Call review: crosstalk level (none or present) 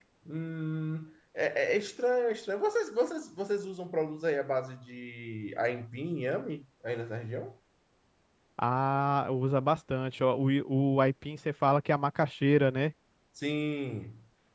none